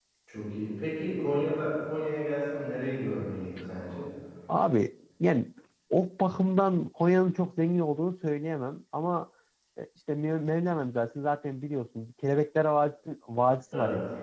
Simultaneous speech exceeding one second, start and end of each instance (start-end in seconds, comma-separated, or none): none